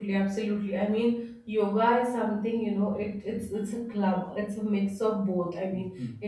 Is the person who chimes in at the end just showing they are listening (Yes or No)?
Yes